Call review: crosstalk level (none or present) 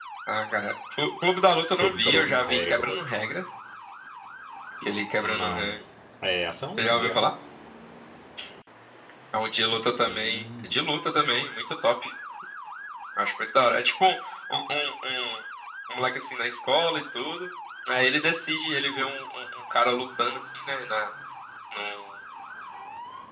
present